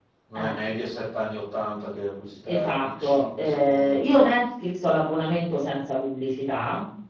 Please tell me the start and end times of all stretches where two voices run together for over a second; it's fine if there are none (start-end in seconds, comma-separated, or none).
2.5-4.0